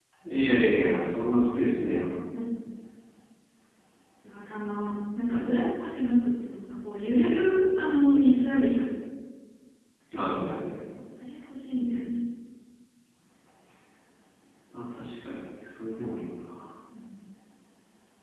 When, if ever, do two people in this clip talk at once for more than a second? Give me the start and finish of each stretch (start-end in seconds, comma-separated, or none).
none